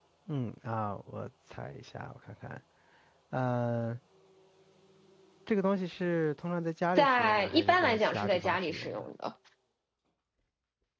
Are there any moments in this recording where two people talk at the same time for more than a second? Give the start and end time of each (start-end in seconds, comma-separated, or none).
7.0-9.1